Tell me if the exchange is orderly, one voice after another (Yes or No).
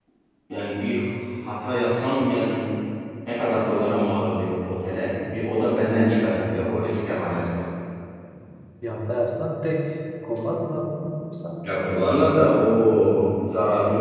Yes